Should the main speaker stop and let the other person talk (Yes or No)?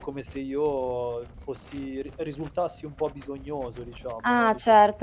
Yes